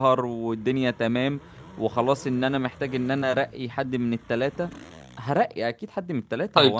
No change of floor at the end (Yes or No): No